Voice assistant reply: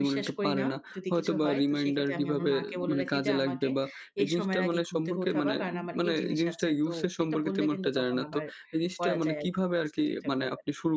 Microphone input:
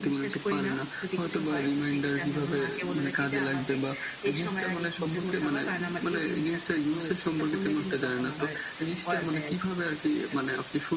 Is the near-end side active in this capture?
No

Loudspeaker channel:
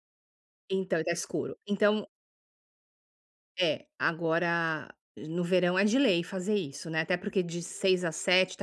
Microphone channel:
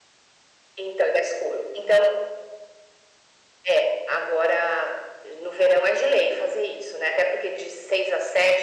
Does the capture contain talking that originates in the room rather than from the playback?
No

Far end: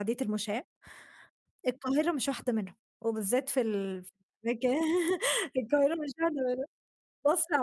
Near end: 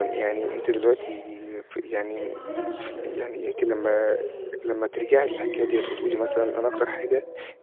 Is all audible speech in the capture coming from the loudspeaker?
No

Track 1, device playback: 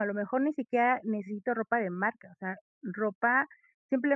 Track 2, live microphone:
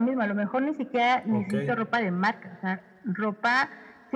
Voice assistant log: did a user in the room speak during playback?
Yes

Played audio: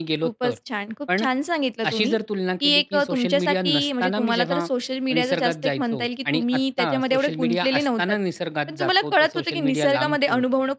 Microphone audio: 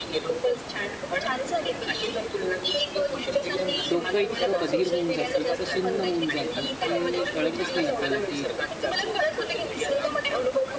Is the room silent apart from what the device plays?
No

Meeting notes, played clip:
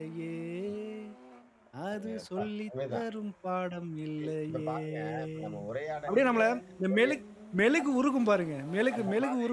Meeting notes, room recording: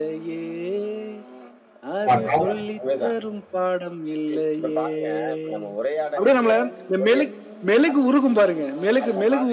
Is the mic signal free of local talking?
No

